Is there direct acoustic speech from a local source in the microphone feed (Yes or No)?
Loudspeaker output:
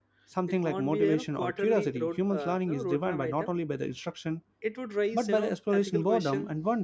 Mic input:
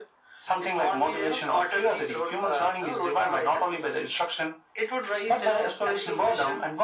No